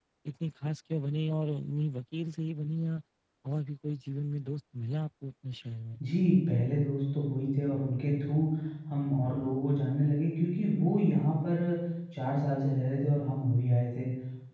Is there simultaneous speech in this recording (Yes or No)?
No